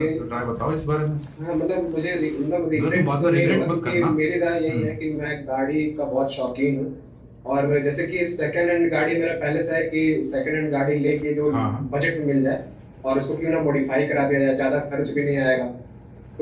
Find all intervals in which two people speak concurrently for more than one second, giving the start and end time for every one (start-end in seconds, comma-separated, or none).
2.8-4.2